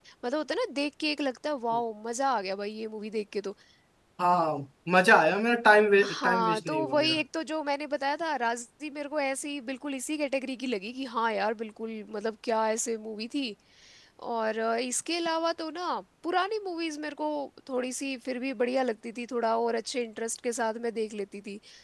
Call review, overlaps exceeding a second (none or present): present